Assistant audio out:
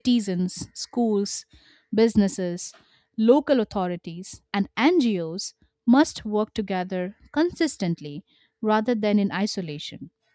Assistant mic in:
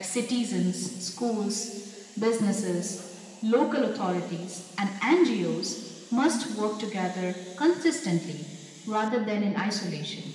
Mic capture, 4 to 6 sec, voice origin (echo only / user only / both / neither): echo only